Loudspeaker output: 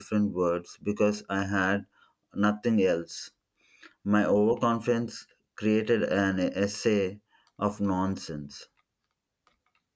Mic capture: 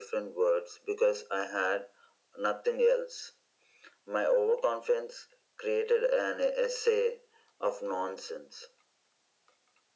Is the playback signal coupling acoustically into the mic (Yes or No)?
Yes